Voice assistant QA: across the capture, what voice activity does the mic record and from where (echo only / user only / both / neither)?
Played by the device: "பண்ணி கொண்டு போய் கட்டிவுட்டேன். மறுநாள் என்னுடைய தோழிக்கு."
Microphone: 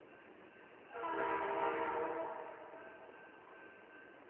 neither